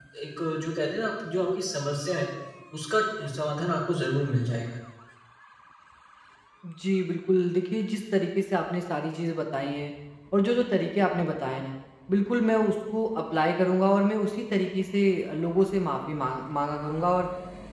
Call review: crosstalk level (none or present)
none